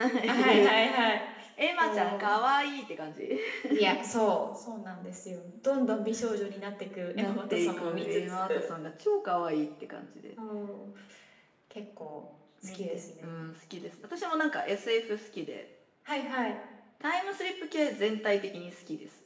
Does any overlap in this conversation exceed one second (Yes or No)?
Yes